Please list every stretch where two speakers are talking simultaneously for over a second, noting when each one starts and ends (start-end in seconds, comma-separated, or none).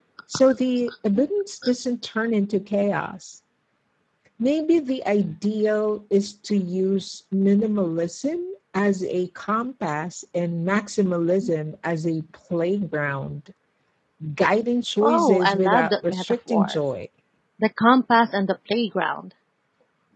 15.0-16.8